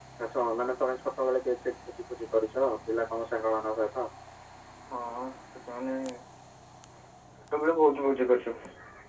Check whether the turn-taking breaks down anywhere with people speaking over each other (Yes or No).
No